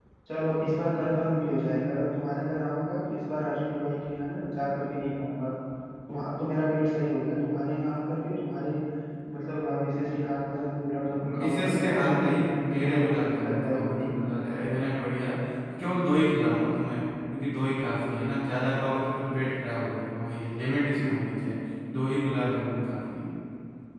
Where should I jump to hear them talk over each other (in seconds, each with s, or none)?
11.1 s